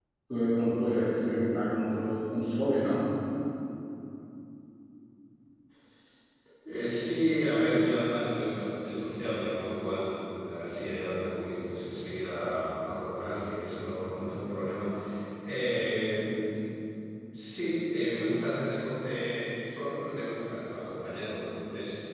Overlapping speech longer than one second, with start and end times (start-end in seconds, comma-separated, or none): none